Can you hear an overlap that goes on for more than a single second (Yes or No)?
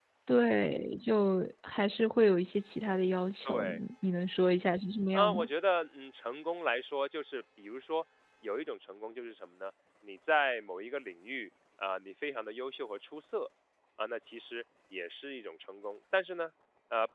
No